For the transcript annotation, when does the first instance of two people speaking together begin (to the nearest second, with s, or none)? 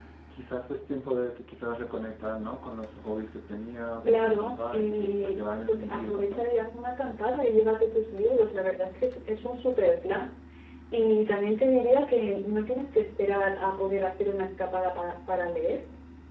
4 s